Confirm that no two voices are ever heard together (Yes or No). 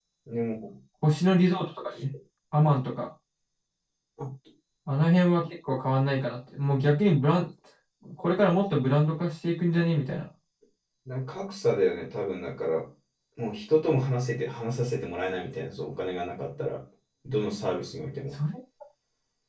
Yes